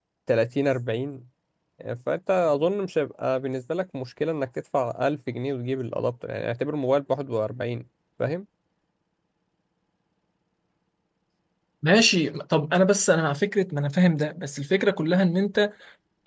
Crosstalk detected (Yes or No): No